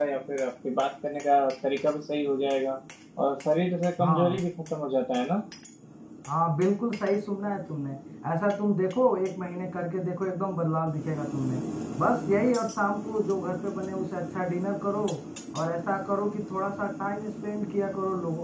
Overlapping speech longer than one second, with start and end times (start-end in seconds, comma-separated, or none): none